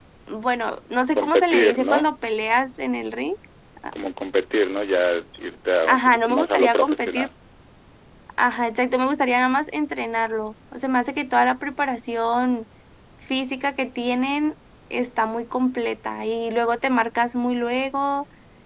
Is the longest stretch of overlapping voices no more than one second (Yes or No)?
No